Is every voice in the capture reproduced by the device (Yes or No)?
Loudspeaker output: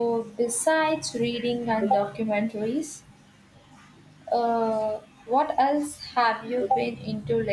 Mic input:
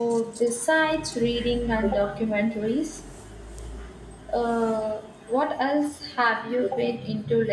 Yes